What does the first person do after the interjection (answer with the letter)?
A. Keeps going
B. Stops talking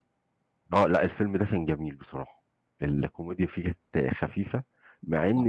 A